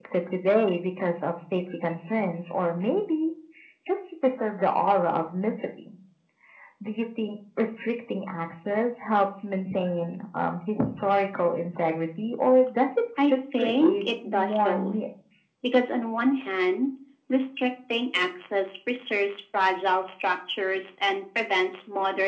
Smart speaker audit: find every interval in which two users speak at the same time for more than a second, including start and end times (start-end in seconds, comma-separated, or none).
13.3-15.0